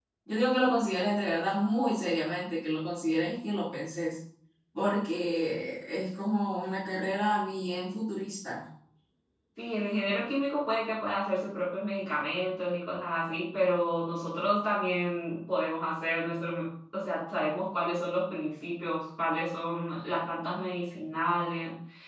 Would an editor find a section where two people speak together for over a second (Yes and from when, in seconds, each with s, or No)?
No